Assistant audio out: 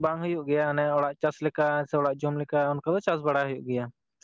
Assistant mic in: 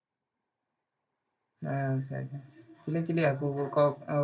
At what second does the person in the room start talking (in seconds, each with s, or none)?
1.7 s